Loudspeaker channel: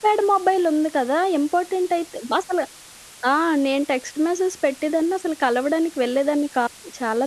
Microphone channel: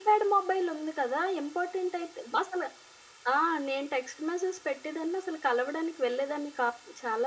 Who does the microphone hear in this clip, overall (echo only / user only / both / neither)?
echo only